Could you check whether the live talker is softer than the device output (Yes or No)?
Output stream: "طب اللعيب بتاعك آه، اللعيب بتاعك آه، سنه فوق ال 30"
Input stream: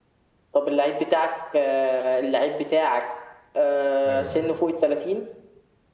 Yes